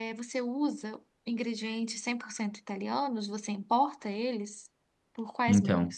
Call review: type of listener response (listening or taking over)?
taking over